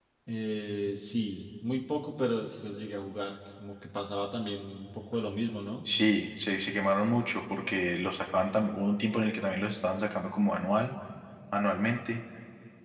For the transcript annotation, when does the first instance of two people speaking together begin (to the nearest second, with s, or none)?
none